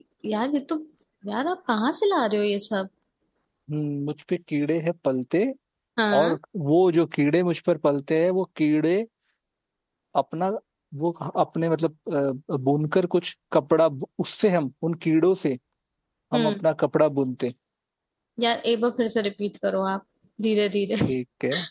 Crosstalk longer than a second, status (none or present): none